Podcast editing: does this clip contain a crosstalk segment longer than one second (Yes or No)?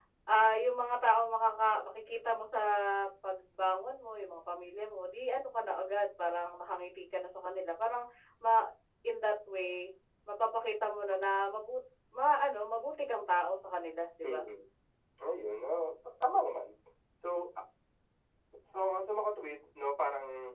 No